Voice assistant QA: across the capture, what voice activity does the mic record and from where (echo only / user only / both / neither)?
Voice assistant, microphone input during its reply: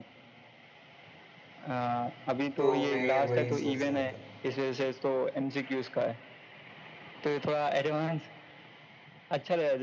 both